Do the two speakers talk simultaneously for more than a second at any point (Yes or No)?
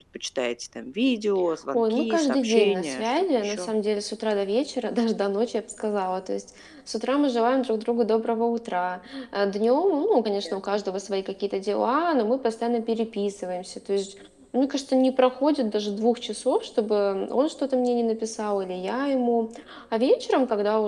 Yes